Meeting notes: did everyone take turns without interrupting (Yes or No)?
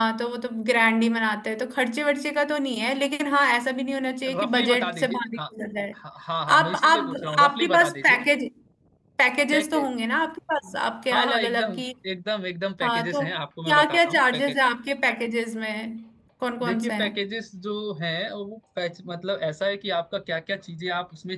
No